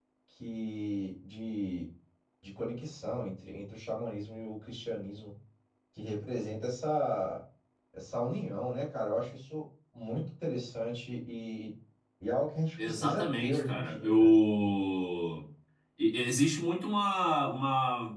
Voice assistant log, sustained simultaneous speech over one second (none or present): present